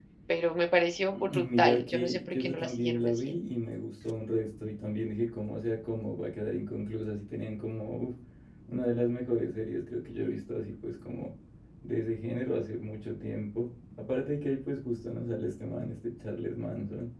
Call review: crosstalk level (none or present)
present